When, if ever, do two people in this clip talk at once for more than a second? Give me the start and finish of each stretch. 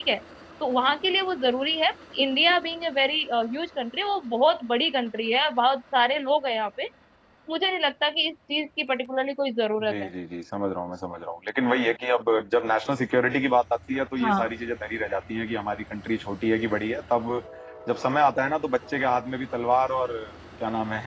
none

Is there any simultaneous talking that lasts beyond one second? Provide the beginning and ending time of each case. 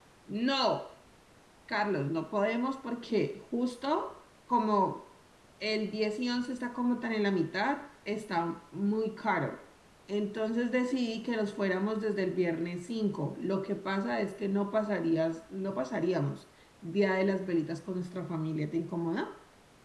none

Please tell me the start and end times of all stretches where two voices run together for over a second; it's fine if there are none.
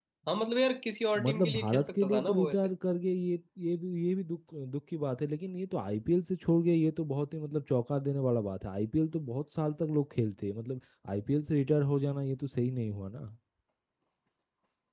1.2-2.6

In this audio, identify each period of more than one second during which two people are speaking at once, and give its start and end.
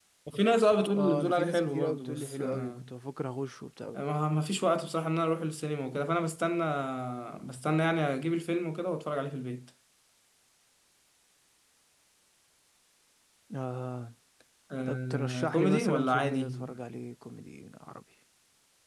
0.9-2.9, 14.9-16.5

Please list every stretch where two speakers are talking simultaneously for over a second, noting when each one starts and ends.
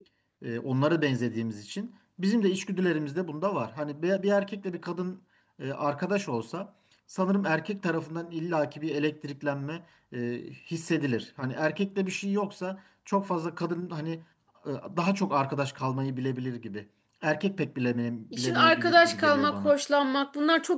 18.4-19.7

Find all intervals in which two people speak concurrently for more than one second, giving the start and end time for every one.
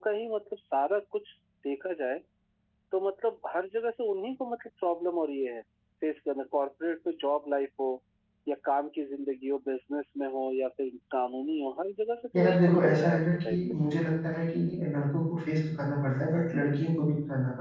12.4-13.6

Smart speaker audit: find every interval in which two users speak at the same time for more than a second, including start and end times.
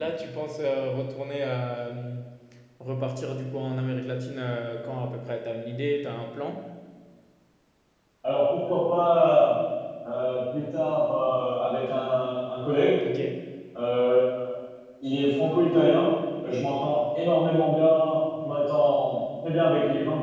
none

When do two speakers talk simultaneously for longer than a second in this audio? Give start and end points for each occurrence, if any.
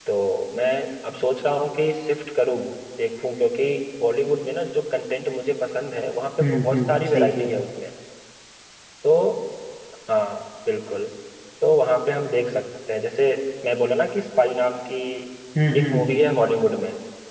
6.4-7.6

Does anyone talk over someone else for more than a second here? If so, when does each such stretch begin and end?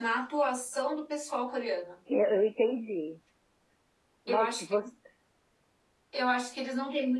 none

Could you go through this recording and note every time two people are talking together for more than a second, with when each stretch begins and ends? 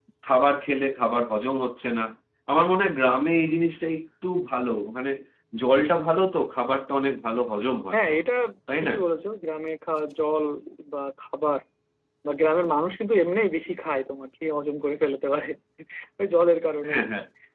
none

